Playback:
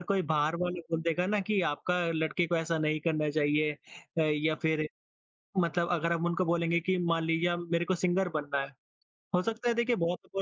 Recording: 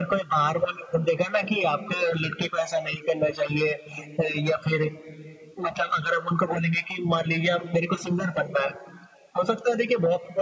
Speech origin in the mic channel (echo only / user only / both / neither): echo only